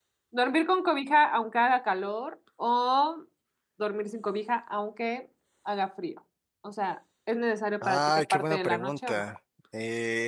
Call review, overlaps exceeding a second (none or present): present